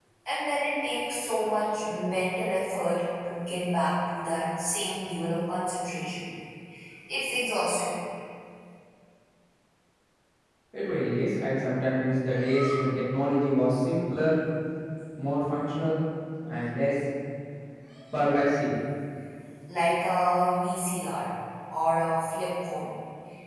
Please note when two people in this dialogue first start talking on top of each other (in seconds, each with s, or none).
none